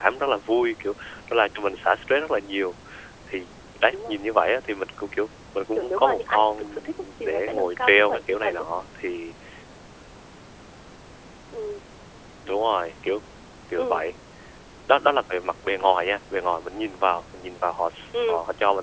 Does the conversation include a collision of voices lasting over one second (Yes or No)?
Yes